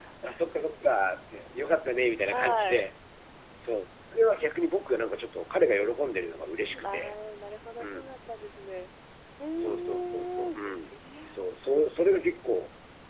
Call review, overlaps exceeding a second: present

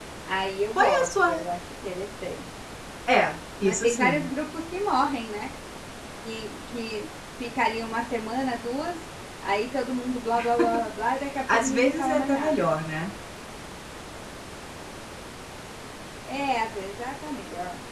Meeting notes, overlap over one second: present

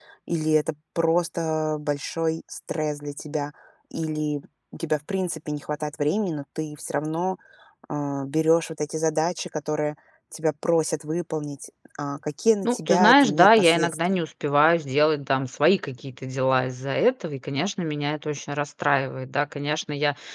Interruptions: present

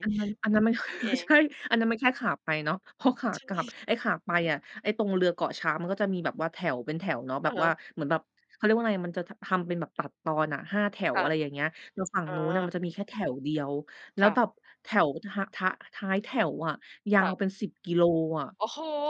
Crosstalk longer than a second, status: none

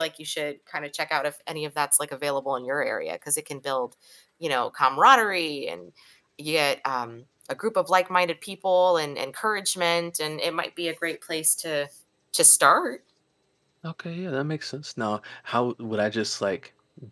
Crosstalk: none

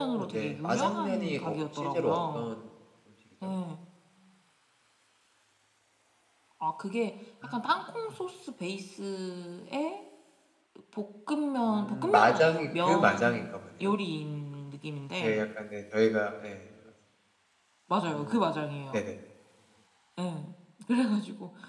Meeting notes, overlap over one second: present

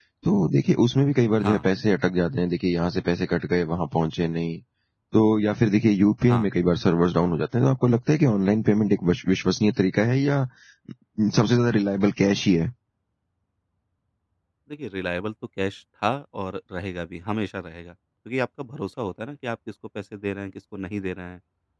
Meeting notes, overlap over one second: none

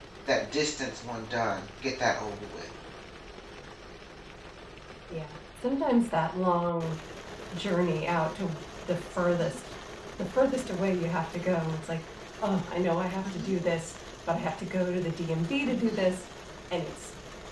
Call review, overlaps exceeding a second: none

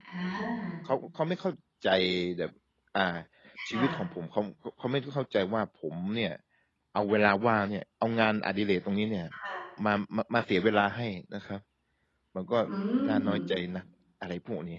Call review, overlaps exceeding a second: none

